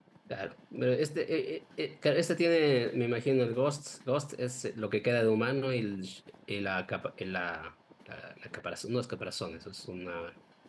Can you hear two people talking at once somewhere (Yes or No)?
No